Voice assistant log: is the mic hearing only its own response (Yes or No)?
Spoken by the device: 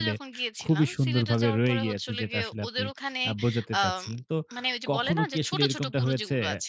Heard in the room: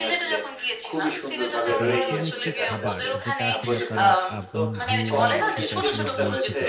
No